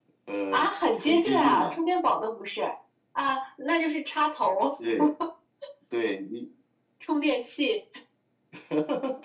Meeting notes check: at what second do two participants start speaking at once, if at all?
0.5 s

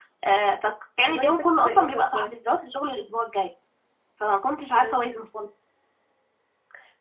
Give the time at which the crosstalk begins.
1.0 s

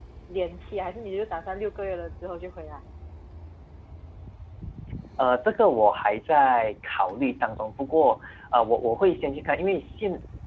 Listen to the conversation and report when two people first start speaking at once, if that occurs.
none

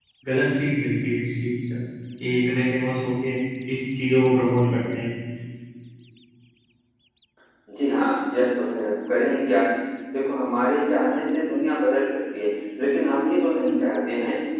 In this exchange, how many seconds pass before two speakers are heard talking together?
none

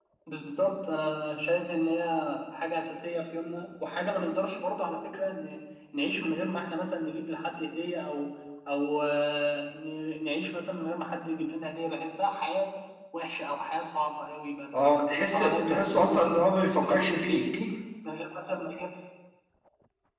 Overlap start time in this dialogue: 14.7 s

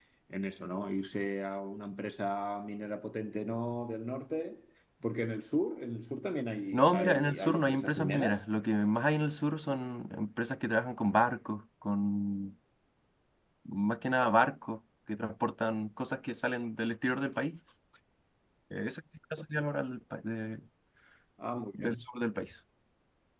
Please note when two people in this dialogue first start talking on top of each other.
6.7 s

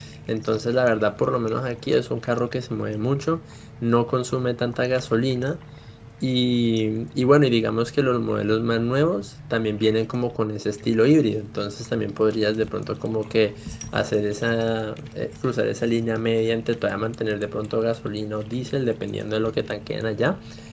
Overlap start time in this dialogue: none

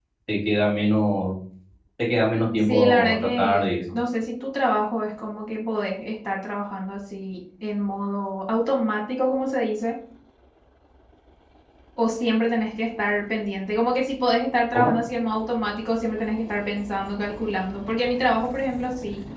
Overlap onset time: 2.6 s

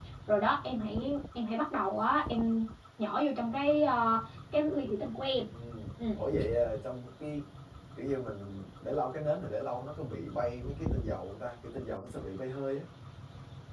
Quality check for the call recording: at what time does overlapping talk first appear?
none

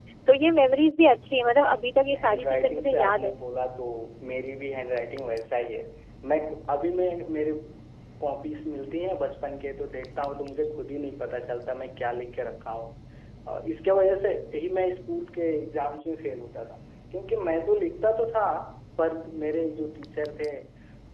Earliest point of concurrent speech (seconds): 2.1 s

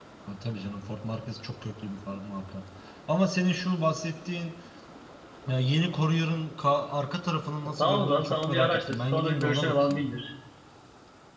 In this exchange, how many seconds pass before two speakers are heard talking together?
7.8 s

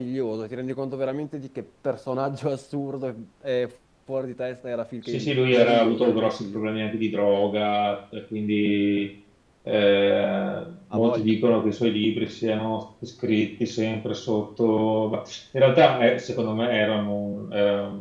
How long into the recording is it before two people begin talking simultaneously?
5.1 s

